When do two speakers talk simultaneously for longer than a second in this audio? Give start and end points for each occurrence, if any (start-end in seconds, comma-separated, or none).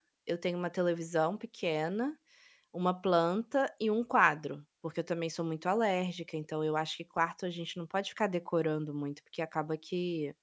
none